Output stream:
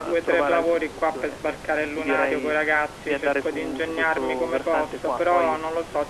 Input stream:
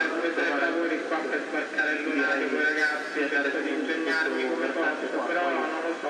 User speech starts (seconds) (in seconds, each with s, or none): none